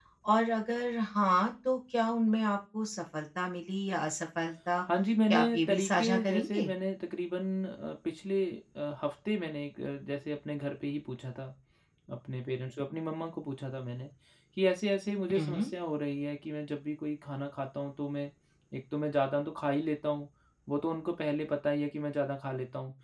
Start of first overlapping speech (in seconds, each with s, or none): 5.3 s